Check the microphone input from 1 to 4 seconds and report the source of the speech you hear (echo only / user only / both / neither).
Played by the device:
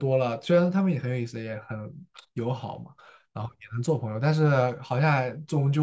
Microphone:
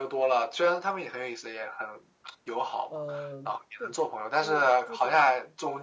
both